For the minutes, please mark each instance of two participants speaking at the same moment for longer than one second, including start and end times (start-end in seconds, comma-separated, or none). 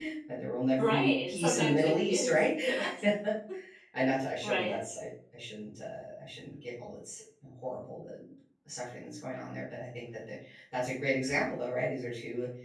0.8-2.4